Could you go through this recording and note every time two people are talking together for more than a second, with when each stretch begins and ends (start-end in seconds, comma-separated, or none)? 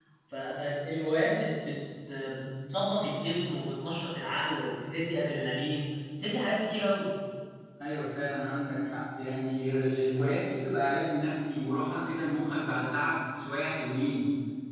none